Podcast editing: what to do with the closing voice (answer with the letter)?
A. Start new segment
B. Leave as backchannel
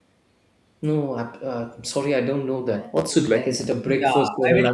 A